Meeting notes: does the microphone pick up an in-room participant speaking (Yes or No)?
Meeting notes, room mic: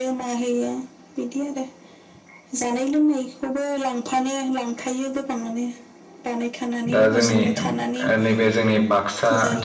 Yes